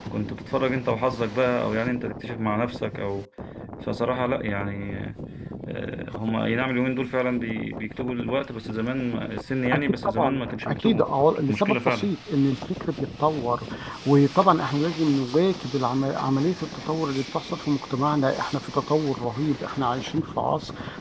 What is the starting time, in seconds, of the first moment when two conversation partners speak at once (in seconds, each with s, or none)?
9.7 s